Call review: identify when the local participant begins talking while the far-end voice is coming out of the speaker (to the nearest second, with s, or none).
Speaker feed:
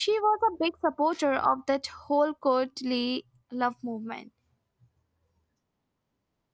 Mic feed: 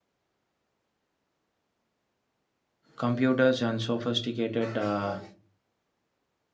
3 s